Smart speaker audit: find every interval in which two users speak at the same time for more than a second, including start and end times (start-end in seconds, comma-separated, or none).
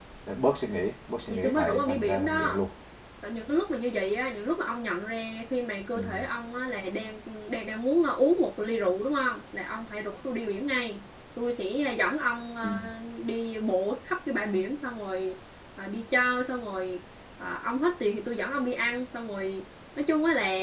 1.3-2.7